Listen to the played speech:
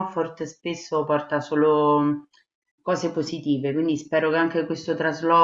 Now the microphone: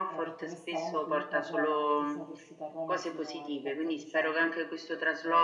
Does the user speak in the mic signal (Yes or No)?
Yes